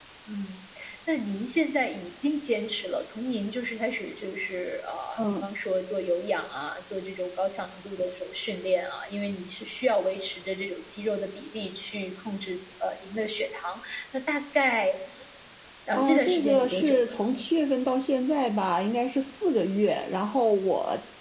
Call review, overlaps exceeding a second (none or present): present